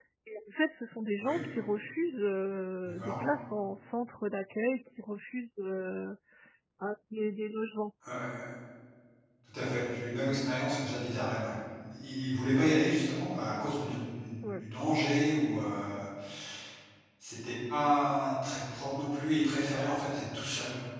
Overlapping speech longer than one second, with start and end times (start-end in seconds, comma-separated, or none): none